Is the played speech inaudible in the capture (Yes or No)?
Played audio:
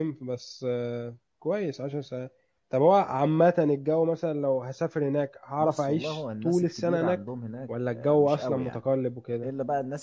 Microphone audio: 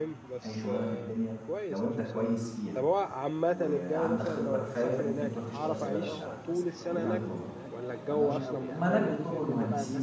No